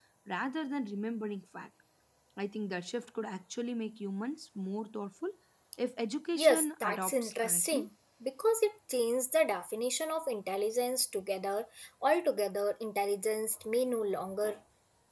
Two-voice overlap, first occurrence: 6.3 s

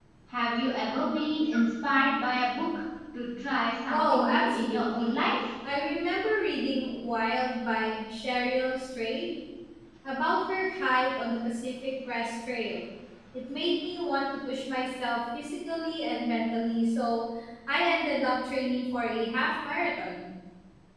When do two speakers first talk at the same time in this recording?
3.9 s

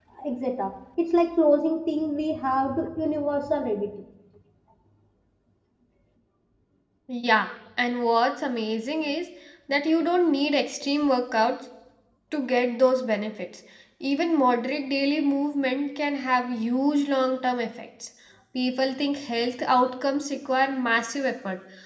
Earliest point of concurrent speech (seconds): none

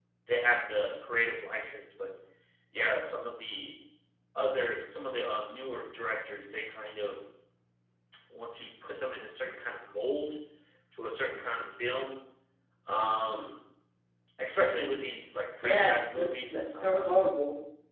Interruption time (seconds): 15.6 s

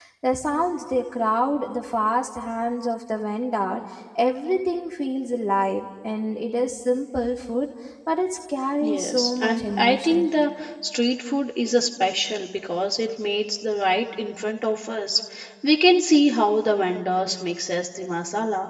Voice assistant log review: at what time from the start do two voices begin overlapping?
8.8 s

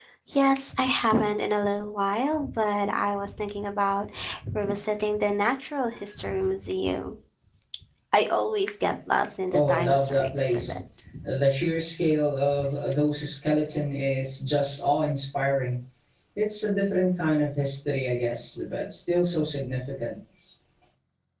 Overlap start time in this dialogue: 9.5 s

